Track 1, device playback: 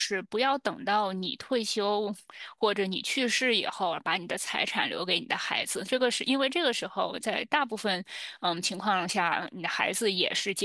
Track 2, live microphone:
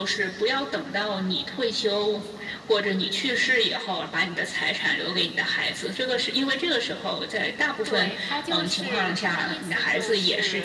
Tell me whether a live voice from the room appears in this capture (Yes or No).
Yes